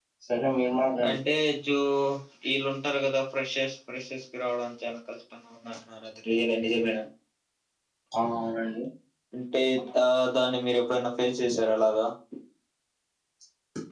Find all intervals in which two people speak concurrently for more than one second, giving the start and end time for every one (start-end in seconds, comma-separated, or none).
none